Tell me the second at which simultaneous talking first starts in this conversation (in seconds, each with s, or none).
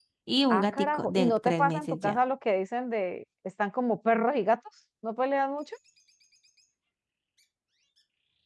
0.5 s